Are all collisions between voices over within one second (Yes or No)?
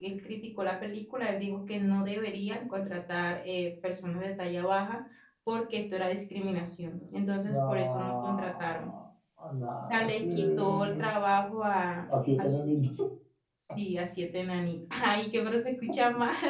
No